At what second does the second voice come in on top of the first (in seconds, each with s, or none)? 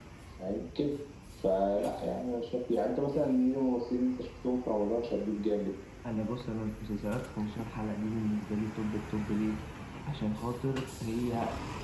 none